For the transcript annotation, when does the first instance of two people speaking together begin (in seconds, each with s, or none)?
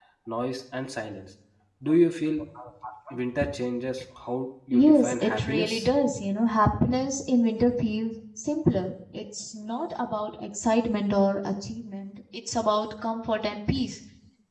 4.7 s